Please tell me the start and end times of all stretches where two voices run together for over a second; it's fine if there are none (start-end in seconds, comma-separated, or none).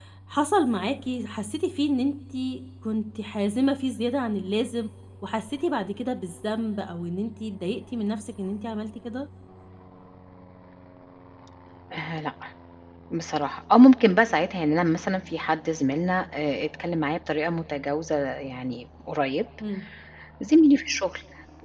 none